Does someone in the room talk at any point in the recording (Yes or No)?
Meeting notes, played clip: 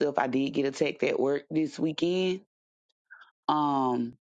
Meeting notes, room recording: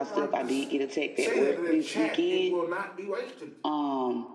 Yes